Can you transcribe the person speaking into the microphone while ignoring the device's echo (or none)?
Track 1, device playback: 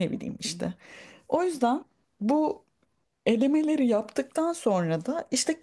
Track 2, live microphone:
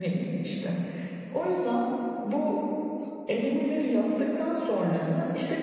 none